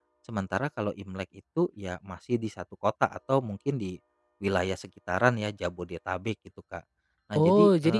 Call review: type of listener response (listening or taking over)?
taking over